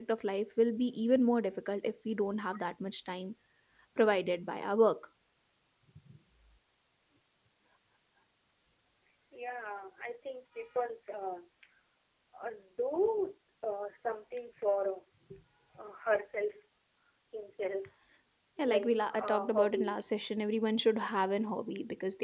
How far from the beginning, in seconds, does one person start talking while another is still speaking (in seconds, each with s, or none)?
18.6 s